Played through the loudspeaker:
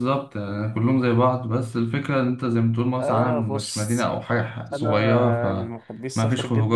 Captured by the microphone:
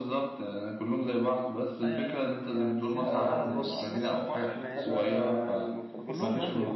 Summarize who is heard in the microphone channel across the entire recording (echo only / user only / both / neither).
both